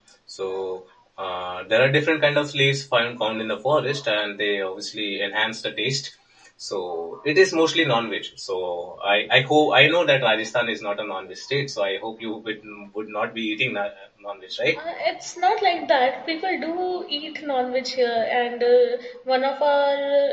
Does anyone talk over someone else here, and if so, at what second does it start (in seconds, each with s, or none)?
none